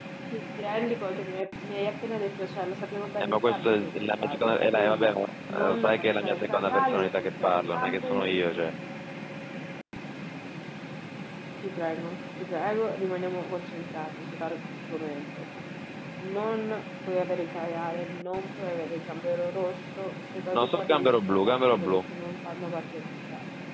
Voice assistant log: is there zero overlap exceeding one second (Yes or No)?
No